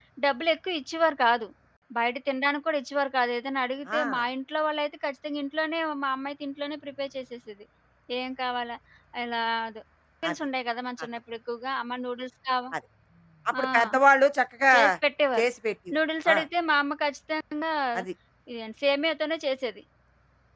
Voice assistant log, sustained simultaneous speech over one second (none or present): none